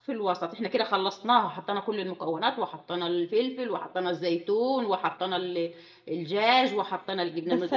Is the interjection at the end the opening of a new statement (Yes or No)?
Yes